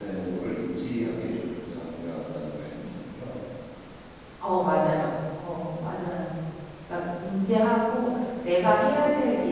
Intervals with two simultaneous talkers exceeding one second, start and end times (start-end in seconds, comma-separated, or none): none